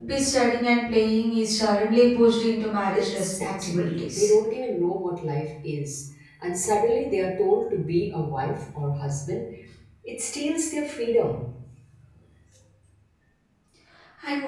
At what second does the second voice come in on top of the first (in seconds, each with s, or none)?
3.0 s